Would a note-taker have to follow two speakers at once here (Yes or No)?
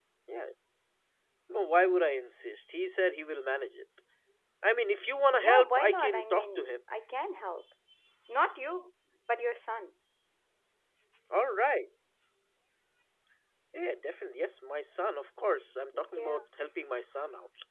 Yes